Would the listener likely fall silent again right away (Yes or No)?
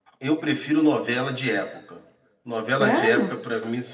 Yes